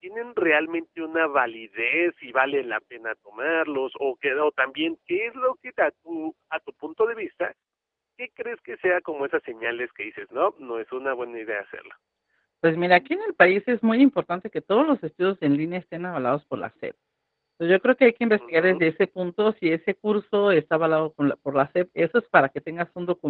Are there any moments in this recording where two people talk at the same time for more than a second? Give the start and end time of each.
none

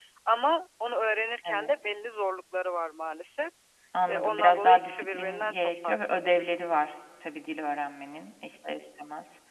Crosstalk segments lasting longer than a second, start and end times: 4.1-6.2

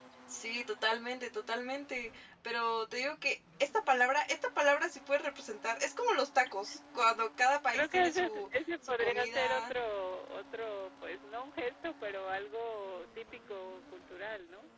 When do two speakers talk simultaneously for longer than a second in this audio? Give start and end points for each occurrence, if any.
7.7-9.7

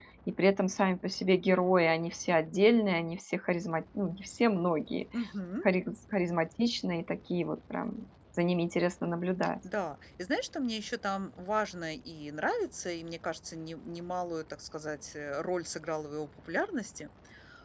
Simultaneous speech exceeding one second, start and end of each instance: none

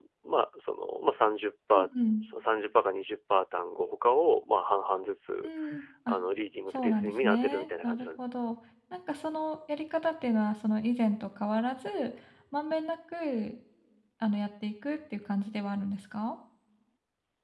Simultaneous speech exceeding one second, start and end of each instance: 6.7-8.2

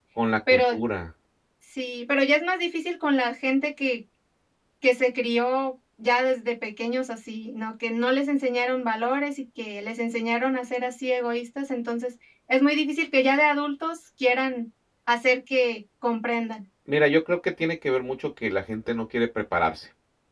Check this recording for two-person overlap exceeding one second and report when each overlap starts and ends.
none

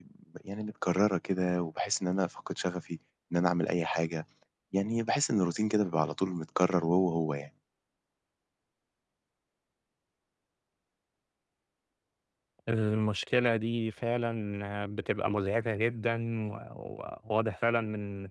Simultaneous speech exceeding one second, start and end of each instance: none

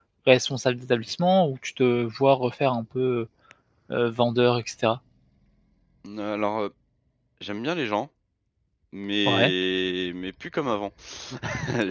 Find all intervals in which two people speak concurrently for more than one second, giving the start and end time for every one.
none

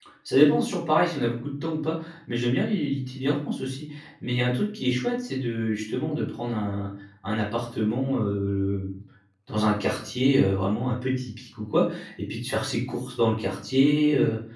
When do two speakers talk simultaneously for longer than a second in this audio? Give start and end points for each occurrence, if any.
none

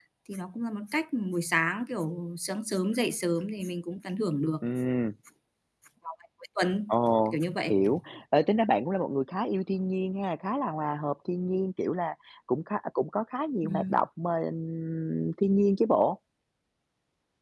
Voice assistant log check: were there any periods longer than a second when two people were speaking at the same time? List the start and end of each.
none

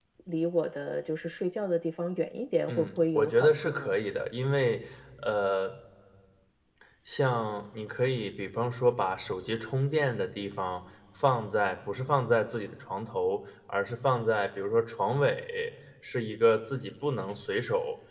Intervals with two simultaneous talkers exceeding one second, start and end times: 2.7-3.9

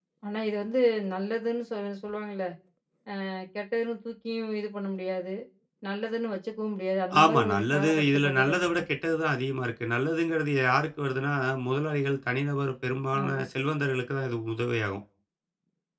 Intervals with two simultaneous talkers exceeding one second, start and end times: 7.2-8.8

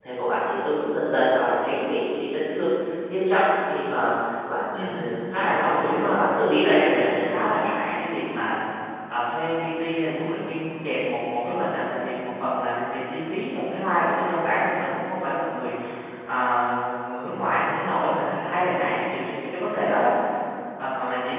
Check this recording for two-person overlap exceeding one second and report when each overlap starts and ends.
4.7-7.2

